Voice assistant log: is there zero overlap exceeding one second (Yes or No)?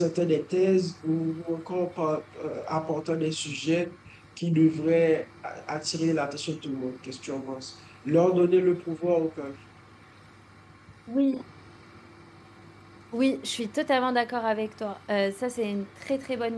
Yes